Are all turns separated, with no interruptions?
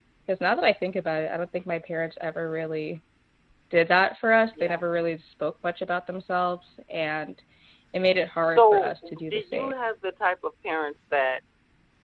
No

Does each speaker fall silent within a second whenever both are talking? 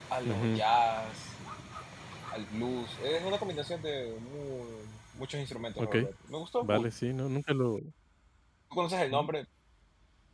Yes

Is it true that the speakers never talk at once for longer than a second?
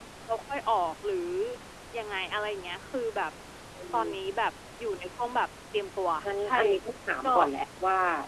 Yes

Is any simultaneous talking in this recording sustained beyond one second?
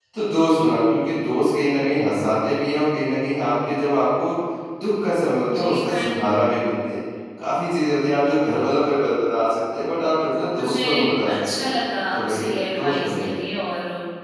Yes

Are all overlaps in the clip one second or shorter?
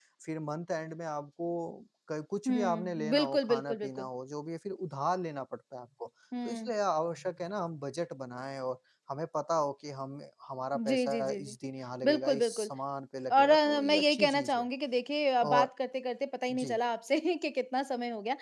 No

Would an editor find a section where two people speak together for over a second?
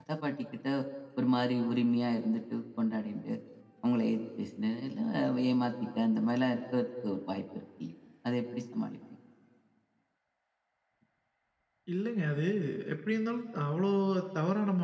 No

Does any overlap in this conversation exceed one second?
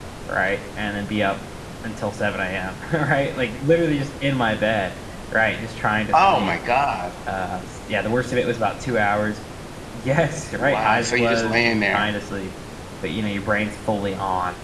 Yes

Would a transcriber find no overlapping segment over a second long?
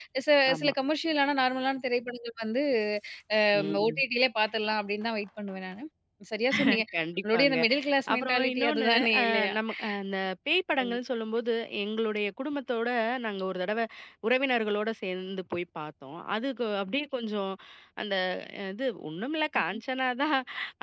No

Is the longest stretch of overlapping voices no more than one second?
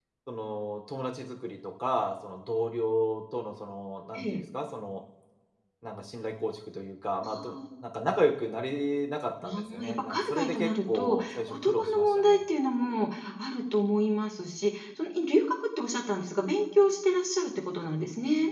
No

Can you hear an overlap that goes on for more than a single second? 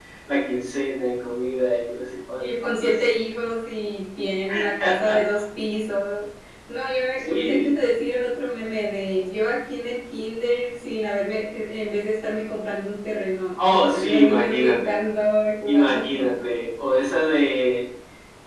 Yes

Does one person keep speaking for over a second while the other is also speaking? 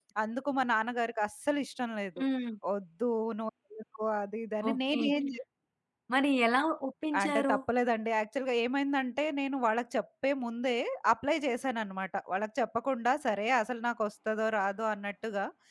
No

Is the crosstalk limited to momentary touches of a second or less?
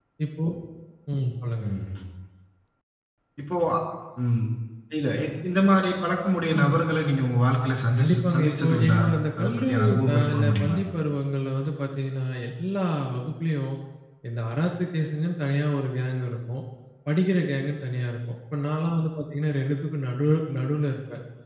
No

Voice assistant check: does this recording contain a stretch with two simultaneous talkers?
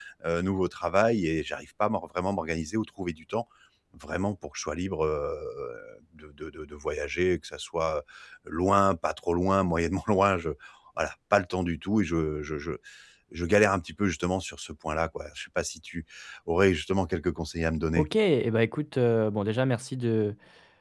No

